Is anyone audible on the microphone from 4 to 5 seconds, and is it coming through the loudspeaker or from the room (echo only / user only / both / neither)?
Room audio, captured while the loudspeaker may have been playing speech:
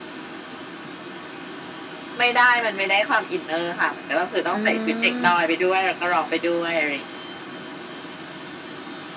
both